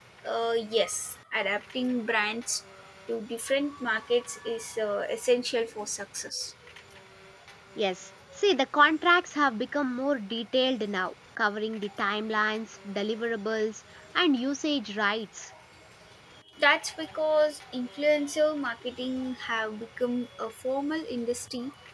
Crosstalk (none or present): none